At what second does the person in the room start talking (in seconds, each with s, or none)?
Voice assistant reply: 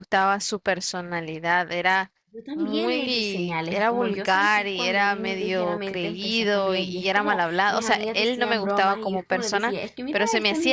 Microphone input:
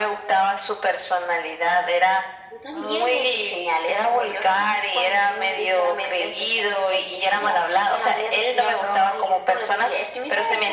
none